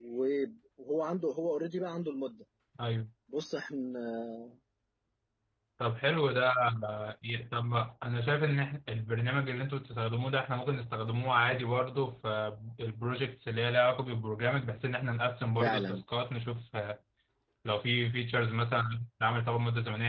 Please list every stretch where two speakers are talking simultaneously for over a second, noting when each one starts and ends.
none

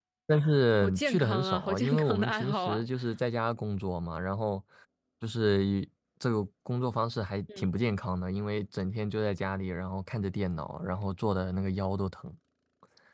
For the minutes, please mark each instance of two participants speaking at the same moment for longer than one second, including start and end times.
0.7-2.8

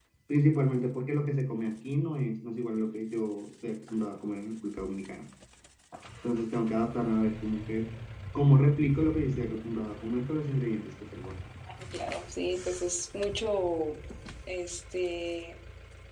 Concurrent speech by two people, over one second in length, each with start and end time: none

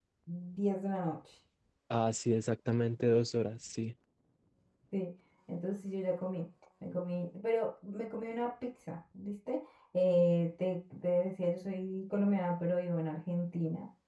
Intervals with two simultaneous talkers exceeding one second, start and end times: none

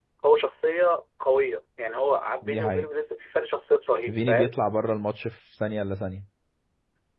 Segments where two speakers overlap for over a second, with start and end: none

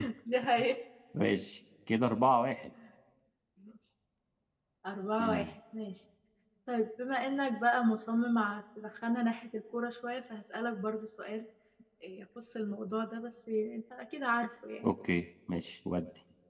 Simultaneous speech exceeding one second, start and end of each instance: none

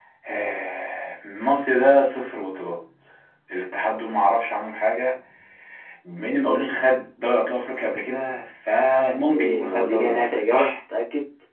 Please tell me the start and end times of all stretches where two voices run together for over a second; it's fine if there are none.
9.3-10.7

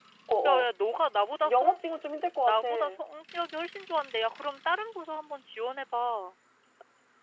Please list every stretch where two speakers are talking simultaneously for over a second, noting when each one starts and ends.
none

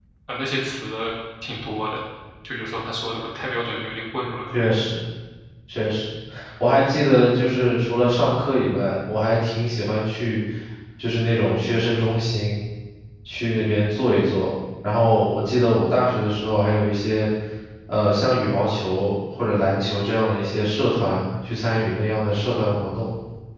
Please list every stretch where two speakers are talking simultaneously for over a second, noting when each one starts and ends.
none

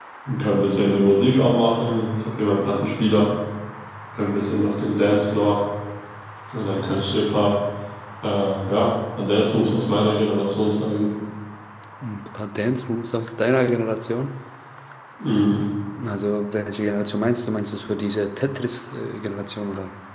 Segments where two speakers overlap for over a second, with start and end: none

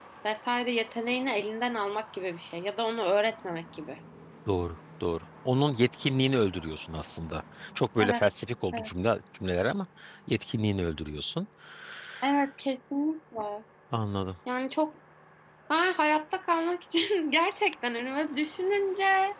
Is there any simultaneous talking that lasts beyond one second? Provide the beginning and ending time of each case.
none

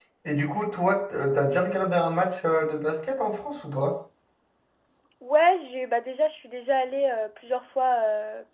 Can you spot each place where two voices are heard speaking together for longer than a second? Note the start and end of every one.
none

